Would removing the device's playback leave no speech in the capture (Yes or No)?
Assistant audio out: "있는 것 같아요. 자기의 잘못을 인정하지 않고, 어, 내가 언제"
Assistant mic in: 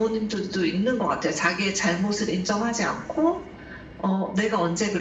Yes